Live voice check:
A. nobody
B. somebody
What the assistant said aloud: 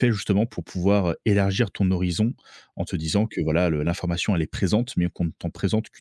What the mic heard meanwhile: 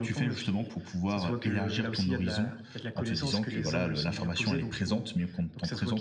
B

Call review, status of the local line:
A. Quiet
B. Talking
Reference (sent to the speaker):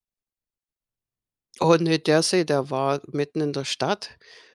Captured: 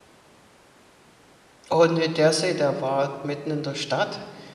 A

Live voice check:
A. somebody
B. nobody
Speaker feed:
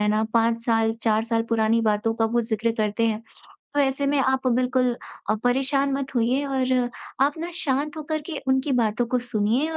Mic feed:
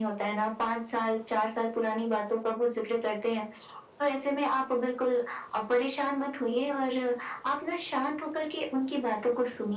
B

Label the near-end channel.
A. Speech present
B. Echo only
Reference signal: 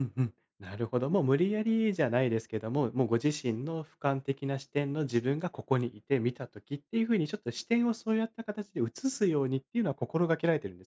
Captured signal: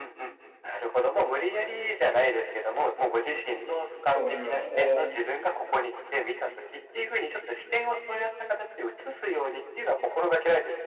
A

